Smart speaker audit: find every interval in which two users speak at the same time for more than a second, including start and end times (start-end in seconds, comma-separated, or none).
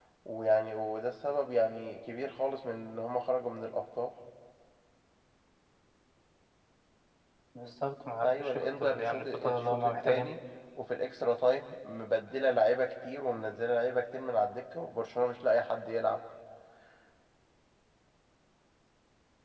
8.2-10.3